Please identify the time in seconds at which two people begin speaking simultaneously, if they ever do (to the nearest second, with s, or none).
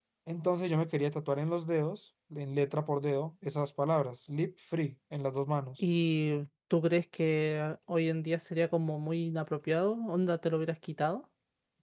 none